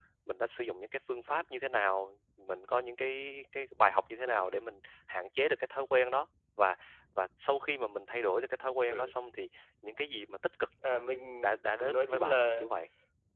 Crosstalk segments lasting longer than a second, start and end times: 11.4-12.7

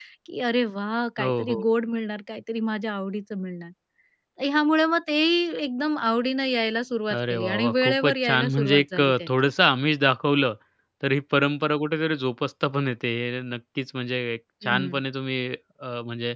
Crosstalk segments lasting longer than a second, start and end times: 7.1-9.3

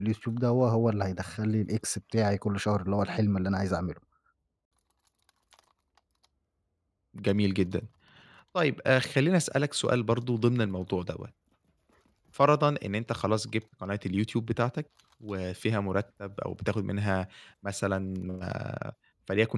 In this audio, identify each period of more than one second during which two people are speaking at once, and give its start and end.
none

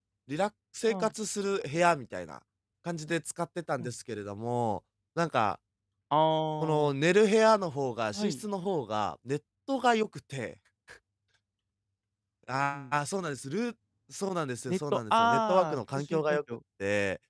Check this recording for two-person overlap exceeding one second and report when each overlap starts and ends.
14.7-16.4

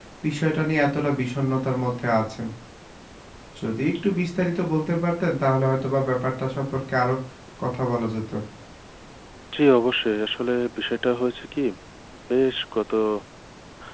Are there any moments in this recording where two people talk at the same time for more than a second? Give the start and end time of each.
none

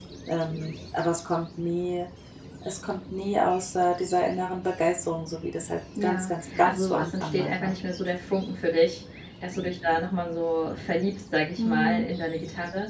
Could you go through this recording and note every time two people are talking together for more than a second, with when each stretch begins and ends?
6.0-7.8

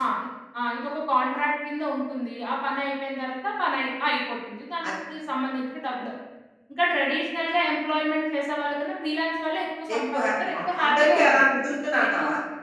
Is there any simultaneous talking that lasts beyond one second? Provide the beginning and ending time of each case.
9.9-11.4

